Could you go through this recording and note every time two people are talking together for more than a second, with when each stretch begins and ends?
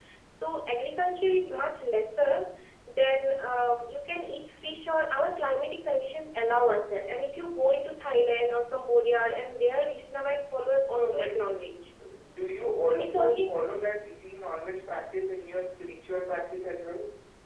none

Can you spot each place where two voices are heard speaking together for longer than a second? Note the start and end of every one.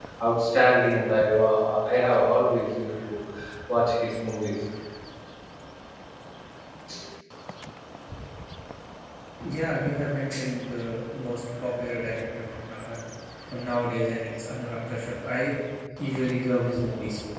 none

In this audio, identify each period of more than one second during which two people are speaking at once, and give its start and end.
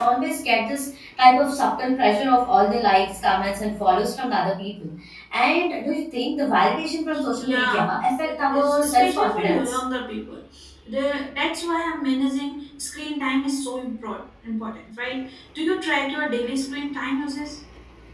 7.4-9.8

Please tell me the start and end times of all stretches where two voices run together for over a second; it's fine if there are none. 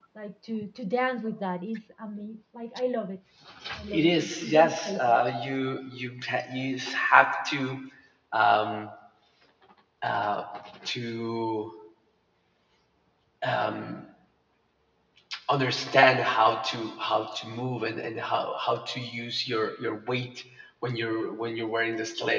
3.9-5.2

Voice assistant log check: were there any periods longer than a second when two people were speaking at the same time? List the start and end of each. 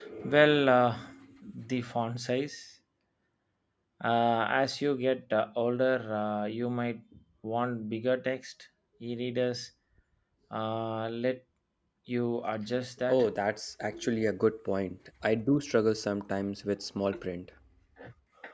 none

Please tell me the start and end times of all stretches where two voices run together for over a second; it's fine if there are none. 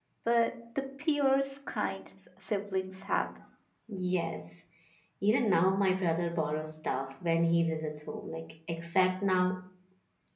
none

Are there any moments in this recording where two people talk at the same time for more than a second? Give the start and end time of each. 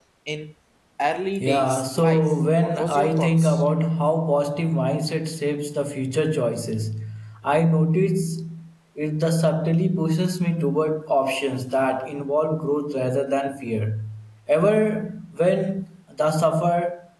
1.4-3.6

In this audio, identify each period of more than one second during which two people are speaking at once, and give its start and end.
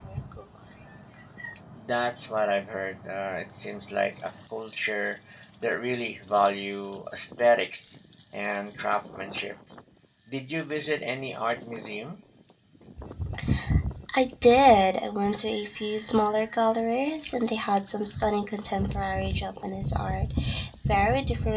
none

